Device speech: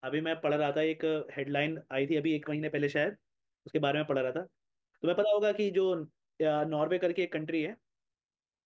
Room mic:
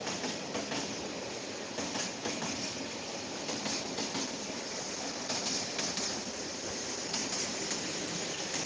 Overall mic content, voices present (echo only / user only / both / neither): neither